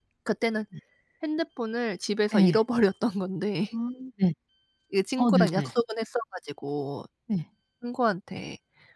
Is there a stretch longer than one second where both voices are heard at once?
No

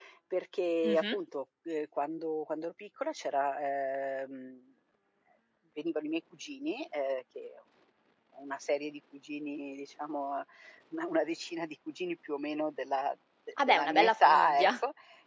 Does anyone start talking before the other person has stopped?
Yes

